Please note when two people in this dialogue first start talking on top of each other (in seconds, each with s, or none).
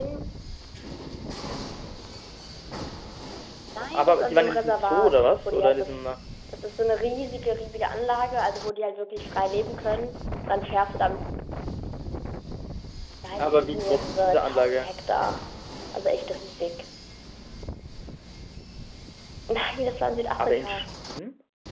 3.9 s